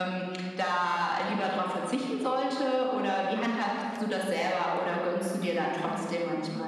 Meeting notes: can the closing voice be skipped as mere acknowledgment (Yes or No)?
No